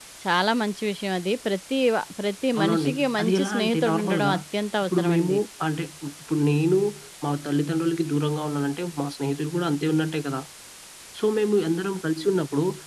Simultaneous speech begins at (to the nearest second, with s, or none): 3 s